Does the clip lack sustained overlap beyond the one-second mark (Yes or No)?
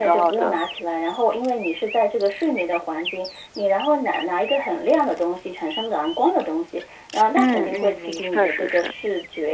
No